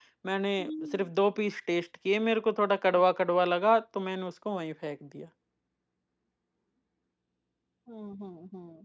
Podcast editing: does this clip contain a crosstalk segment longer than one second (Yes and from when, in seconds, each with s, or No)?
No